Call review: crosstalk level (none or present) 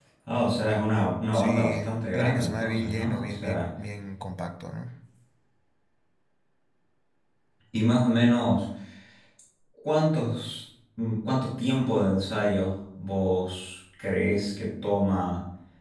present